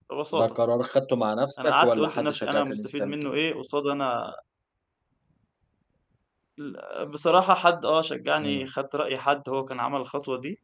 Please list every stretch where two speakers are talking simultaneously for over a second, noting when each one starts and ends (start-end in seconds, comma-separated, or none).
1.6-3.1